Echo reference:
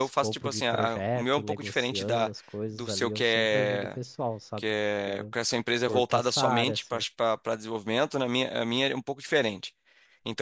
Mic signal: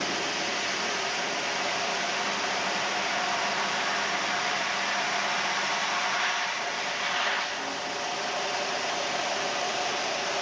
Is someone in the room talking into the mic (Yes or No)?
No